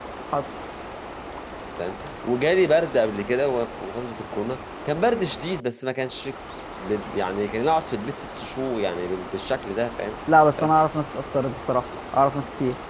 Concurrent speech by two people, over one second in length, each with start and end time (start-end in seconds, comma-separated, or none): none